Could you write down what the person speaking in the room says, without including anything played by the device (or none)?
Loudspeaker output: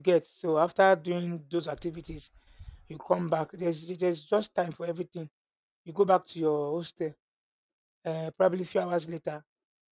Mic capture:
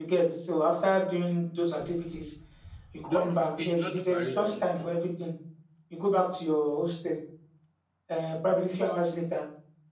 You don't you, you not do parade or anything.